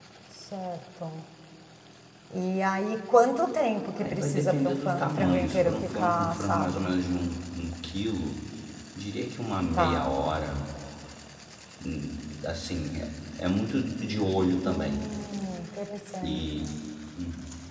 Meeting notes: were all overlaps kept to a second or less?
No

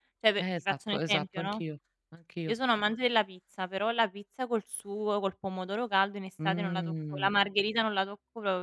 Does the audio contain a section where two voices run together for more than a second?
Yes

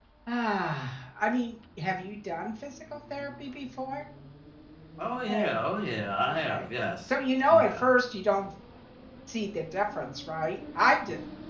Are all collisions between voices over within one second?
Yes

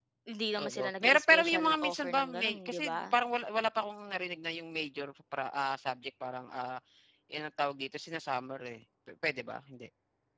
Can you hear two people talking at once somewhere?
Yes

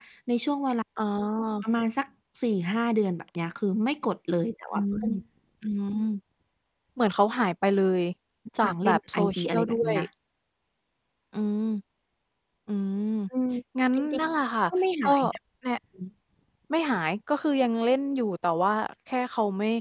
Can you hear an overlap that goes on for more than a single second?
Yes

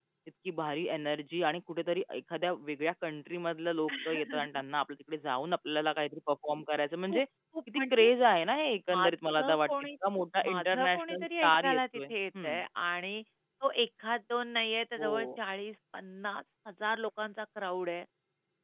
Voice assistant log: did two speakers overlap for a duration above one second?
Yes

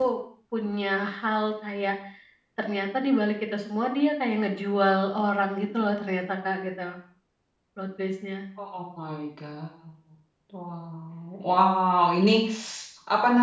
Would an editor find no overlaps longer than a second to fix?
Yes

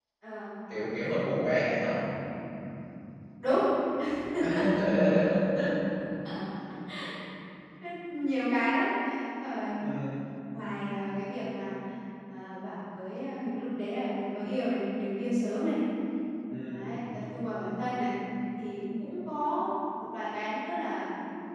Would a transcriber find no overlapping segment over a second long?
No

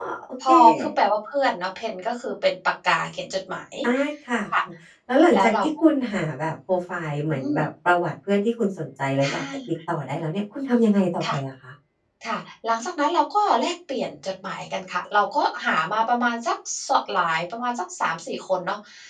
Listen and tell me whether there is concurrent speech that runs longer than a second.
No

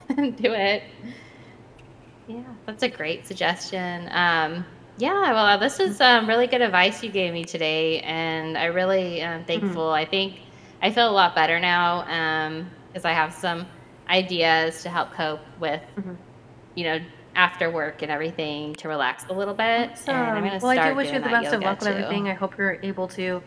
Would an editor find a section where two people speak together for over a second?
Yes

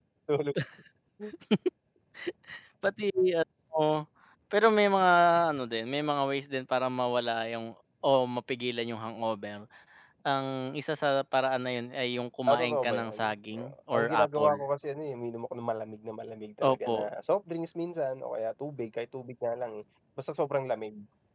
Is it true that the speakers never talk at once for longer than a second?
No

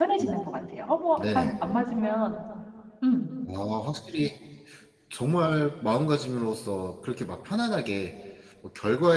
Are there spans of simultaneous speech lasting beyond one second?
No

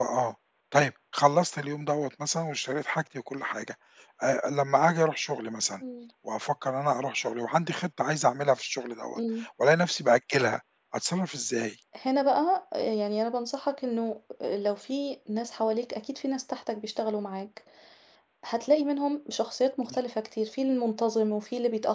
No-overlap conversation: Yes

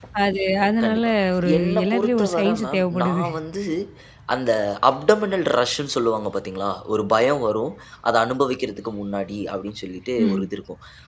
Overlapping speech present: Yes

